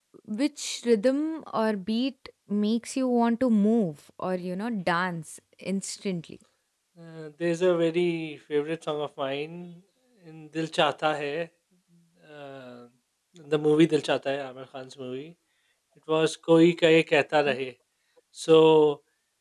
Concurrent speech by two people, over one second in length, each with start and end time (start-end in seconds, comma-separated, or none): none